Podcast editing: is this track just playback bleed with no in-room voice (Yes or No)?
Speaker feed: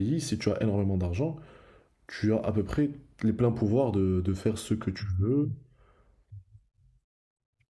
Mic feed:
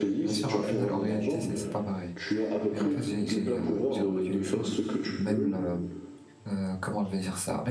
No